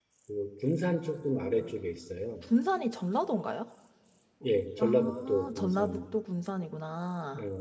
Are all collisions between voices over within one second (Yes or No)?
No